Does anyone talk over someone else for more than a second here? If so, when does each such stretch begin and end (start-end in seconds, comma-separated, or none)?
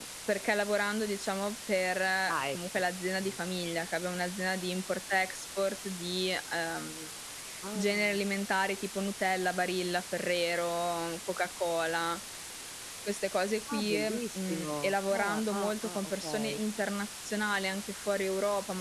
13.7-16.6